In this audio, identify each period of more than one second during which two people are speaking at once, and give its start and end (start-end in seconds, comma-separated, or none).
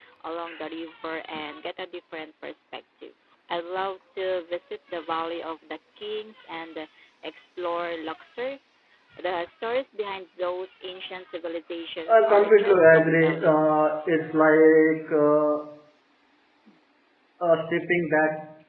12.1-13.7